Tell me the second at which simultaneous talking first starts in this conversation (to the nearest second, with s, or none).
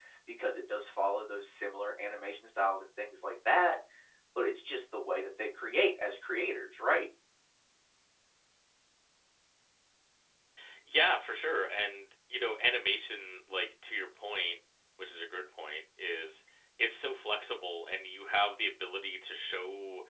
none